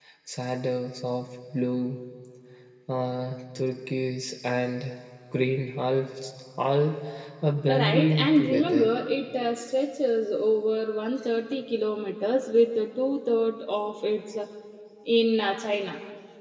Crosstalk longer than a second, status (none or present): present